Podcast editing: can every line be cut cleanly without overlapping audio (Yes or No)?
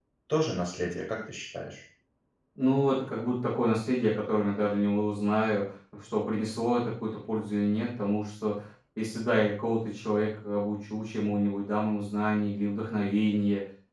Yes